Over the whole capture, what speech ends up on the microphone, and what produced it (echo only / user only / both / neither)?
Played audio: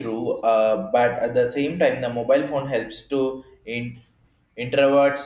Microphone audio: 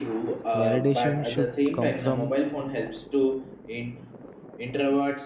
both